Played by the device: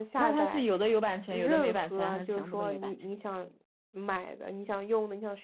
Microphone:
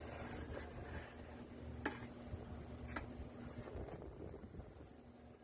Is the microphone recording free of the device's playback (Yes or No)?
Yes